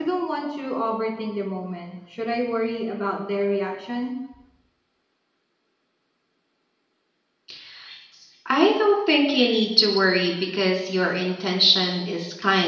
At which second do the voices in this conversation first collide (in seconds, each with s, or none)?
none